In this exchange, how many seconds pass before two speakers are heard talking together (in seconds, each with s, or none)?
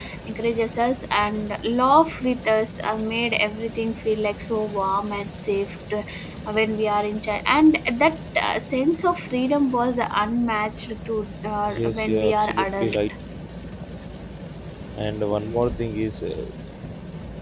11.7 s